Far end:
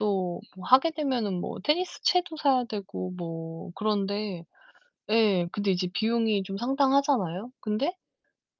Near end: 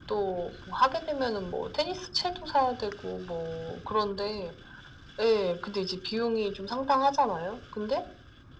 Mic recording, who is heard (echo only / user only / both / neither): echo only